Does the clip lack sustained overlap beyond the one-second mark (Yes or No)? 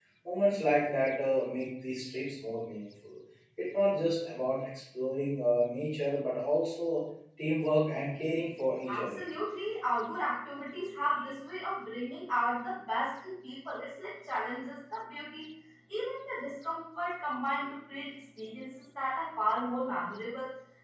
Yes